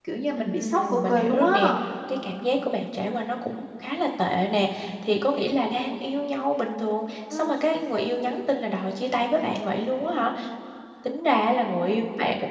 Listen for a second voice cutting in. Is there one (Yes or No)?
Yes